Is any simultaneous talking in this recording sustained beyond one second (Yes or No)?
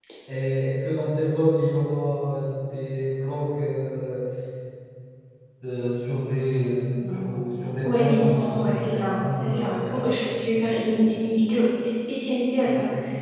Yes